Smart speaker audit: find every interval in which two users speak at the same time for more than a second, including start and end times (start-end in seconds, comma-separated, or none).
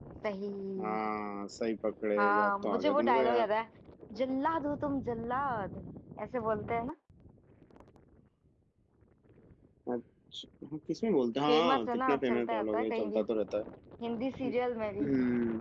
2.2-3.5, 11.5-13.2